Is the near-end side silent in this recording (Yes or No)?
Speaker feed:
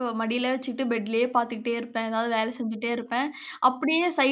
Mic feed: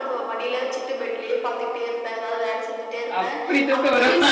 No